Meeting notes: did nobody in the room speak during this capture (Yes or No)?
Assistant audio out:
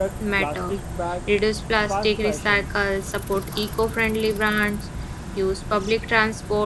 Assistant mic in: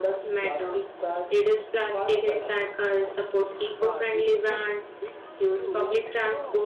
No